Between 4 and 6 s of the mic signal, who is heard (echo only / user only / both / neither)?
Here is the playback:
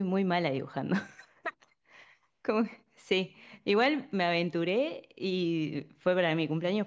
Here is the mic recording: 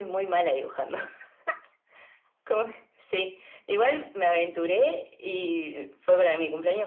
echo only